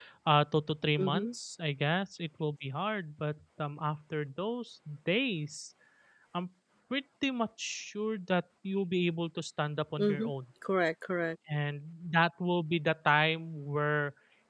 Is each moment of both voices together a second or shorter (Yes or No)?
Yes